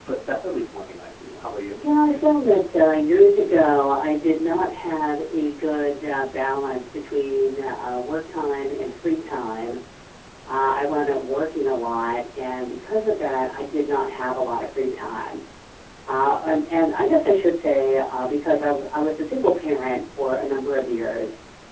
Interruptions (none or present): none